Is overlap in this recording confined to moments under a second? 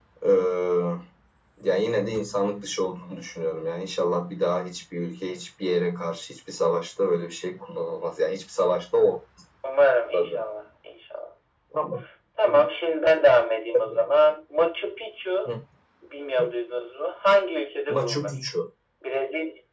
Yes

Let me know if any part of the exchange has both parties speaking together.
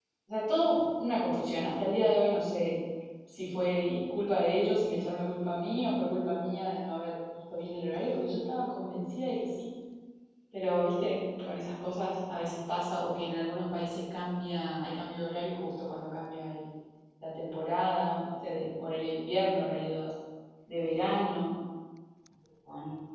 No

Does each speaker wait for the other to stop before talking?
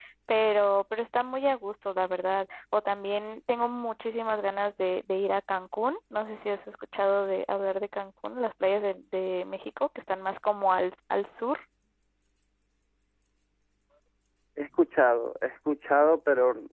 Yes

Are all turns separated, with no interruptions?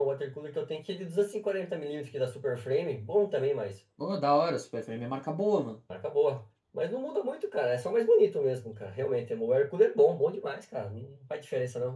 Yes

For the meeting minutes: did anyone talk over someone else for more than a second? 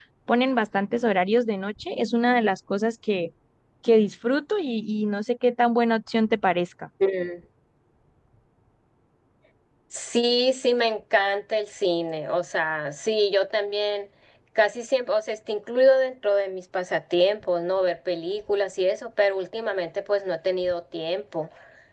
No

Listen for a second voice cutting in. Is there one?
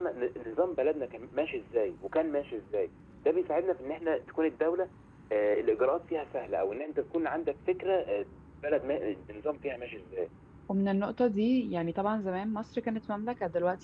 No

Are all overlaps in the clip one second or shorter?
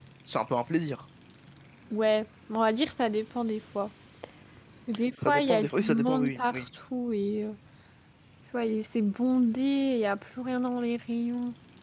No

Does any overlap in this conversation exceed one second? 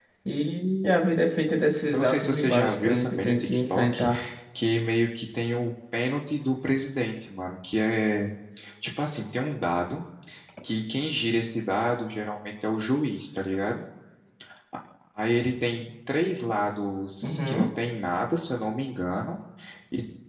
Yes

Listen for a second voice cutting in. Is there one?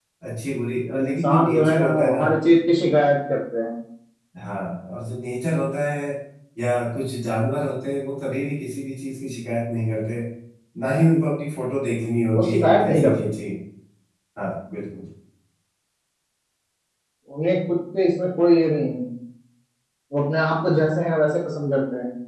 Yes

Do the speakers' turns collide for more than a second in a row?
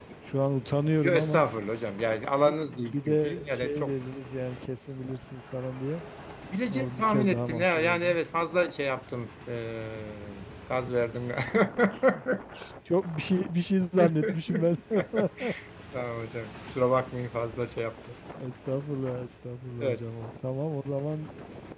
Yes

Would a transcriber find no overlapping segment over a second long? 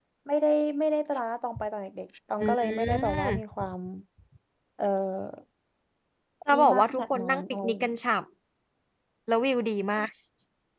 No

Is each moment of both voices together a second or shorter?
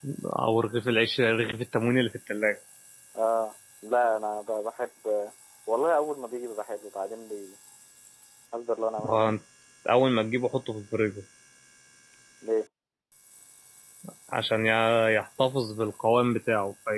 Yes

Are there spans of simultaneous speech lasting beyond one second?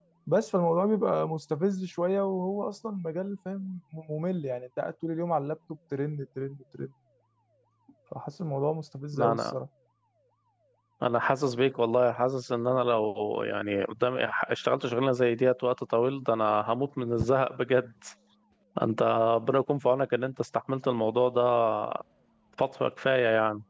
No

